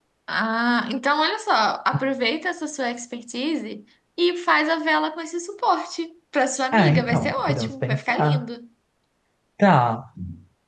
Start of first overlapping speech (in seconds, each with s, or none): 6.7 s